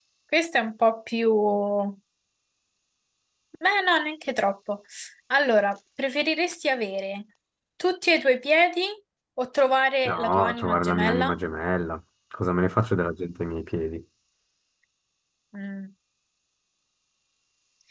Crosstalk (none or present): present